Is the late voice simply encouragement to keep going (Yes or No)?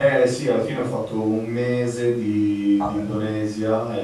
Yes